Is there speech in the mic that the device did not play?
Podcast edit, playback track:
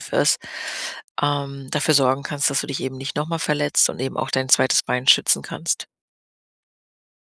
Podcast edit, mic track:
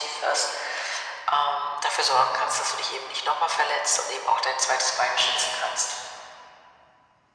No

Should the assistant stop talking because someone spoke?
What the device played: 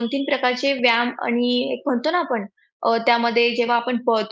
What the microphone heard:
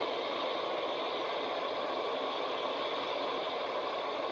No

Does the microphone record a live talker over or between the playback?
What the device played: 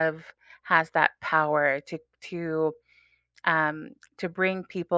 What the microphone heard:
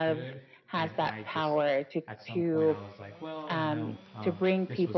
Yes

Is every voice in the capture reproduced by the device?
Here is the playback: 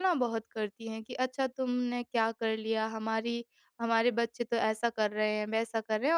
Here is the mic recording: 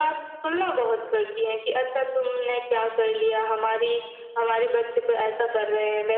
Yes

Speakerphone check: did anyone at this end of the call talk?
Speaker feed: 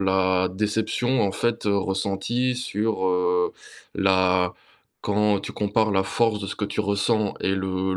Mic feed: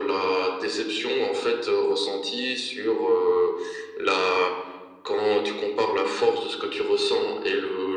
No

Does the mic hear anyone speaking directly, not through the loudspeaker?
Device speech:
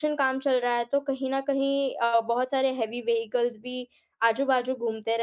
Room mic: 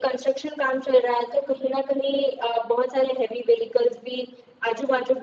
No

